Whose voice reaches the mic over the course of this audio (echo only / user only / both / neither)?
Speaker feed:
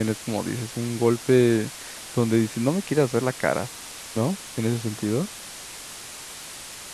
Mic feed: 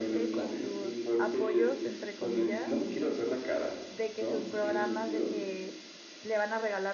both